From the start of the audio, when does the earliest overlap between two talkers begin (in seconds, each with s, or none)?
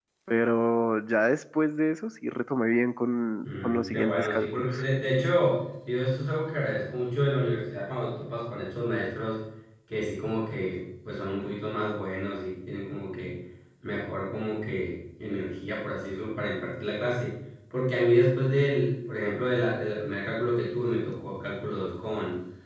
3.4 s